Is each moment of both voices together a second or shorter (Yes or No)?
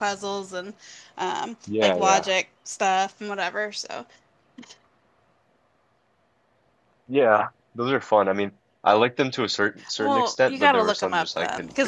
No